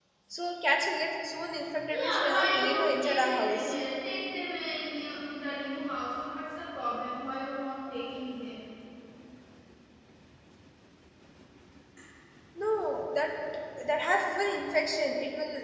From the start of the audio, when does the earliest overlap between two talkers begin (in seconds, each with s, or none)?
1.9 s